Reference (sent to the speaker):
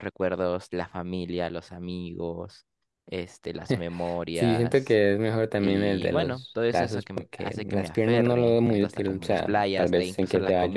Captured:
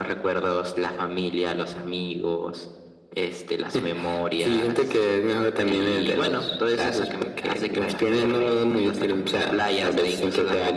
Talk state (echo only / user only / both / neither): echo only